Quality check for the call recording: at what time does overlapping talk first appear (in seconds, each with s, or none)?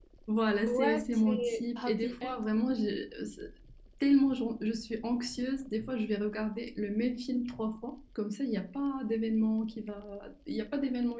0.7 s